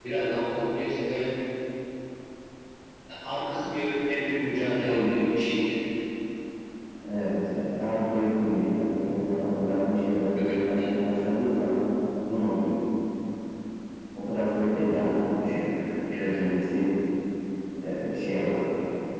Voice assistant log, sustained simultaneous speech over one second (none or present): none